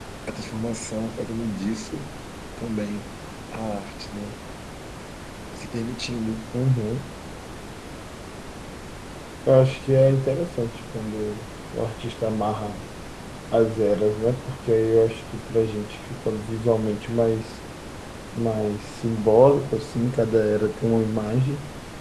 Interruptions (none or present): none